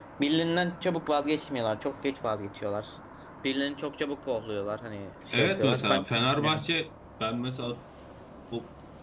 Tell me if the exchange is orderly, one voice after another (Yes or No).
No